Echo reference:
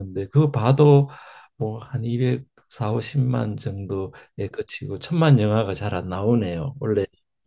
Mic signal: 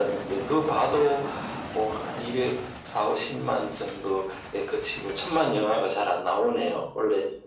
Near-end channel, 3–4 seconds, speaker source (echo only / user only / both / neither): echo only